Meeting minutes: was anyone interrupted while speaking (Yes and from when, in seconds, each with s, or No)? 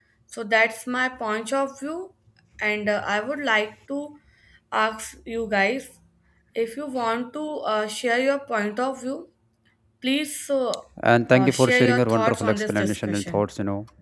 Yes, from 11.3 s